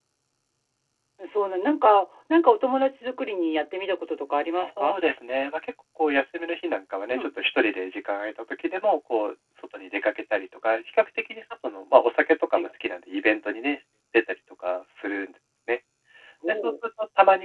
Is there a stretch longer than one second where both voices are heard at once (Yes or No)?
No